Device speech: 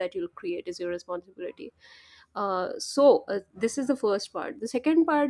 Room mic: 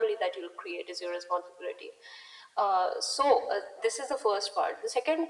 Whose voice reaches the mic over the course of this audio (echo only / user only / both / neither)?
echo only